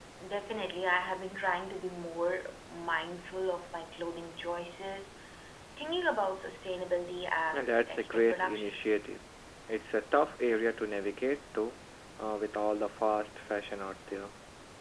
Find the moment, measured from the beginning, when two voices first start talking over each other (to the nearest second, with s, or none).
8 s